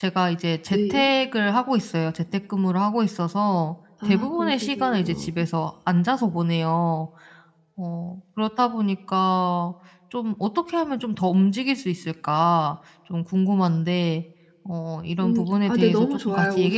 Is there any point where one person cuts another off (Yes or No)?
Yes